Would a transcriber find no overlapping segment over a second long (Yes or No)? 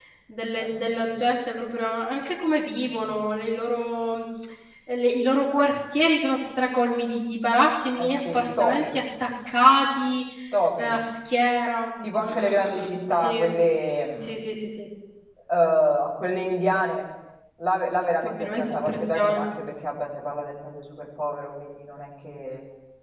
No